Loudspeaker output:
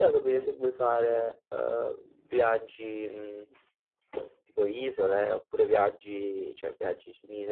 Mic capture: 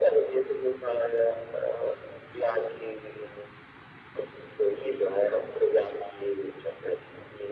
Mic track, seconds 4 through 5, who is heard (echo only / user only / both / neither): echo only